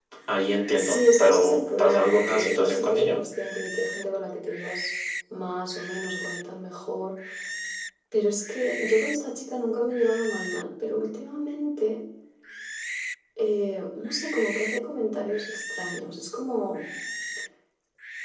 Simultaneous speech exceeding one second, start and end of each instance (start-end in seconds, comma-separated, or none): 0.8-3.2